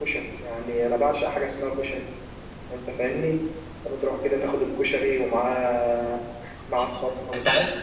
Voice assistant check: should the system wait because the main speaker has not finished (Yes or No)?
No